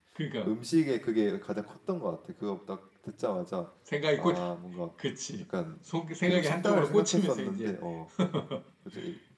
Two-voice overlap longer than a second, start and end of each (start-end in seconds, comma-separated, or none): 6.2-7.8